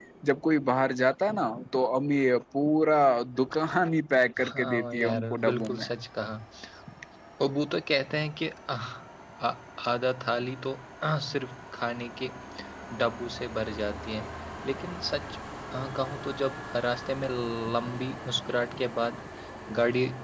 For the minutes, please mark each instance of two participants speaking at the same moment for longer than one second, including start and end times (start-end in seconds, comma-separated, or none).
4.5-5.9